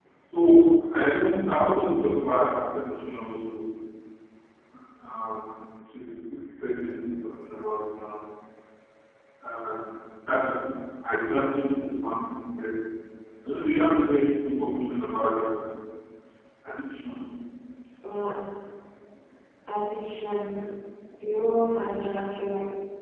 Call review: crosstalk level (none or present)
none